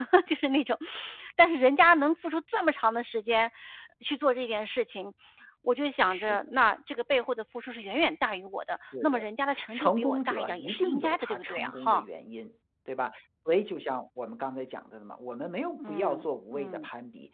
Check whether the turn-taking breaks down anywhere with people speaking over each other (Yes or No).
Yes